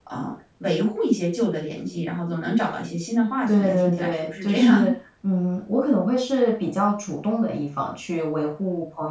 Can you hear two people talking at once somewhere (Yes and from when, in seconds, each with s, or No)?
Yes, from 3.5 s